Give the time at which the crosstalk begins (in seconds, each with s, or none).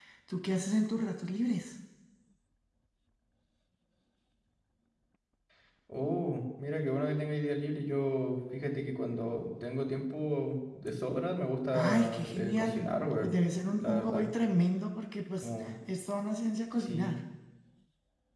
11.8 s